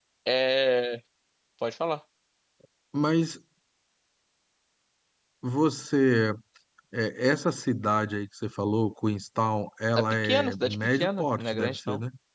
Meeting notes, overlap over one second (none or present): present